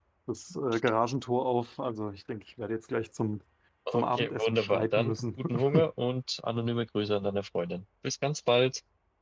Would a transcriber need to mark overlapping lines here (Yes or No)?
Yes